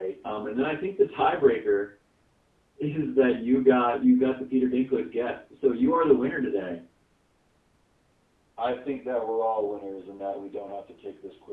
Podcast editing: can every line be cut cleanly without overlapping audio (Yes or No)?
Yes